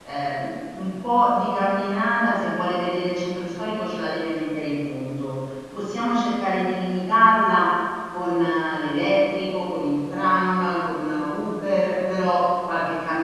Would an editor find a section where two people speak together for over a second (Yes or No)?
No